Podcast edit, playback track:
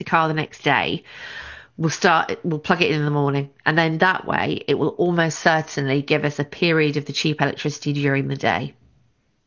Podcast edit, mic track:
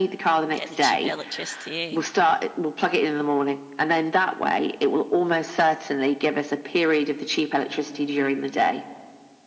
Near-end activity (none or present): present